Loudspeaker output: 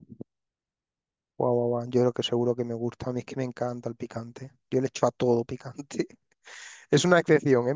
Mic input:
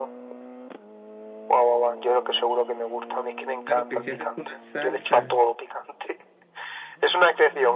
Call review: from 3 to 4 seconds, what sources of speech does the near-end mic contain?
both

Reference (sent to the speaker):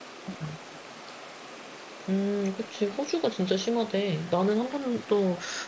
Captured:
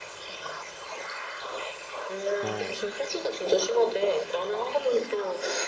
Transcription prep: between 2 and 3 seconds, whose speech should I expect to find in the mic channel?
both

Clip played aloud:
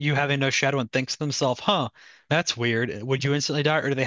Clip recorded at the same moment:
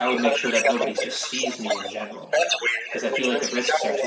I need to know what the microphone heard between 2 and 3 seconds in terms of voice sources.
both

